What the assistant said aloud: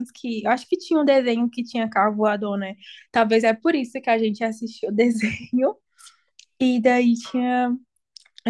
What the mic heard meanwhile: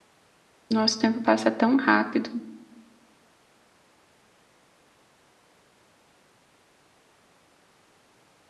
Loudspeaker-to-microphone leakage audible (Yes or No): No